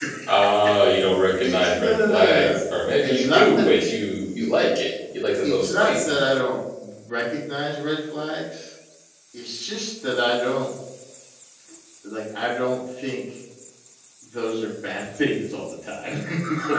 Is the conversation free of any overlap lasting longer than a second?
No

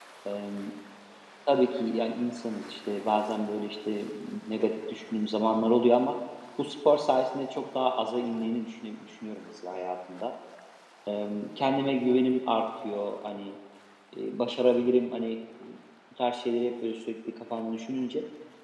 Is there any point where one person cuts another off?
No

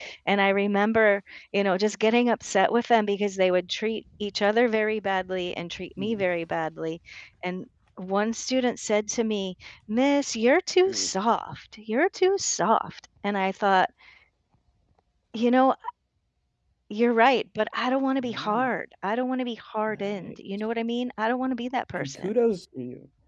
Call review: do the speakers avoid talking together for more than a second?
Yes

